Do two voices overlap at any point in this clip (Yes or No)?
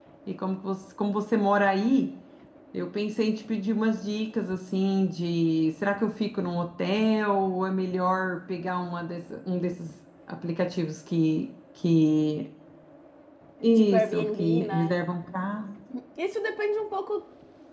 Yes